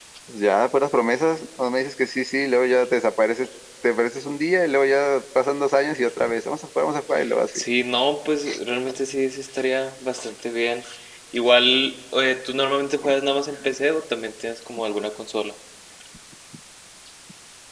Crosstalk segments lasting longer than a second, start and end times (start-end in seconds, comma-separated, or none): none